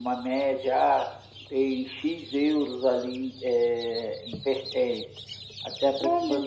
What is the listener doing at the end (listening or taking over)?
listening